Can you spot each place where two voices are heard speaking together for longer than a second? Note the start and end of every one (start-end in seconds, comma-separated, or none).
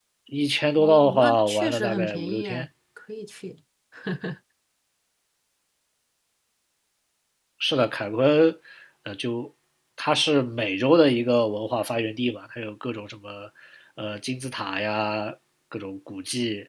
0.8-2.7